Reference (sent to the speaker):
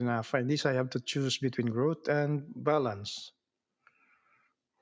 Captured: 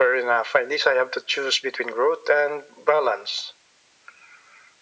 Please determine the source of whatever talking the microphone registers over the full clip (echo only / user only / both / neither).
echo only